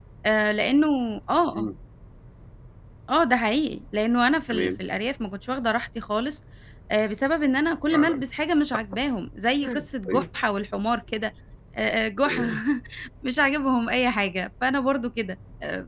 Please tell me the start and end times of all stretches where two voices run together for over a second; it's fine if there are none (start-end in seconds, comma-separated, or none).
none